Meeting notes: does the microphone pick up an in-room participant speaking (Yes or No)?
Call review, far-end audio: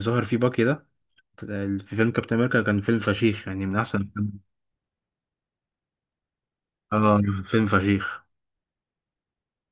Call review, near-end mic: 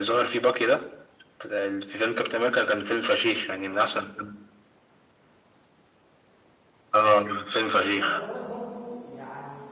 Yes